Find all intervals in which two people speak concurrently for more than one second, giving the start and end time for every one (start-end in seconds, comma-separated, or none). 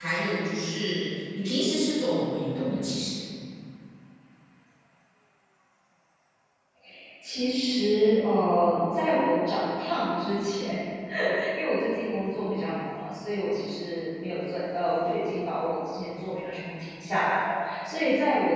none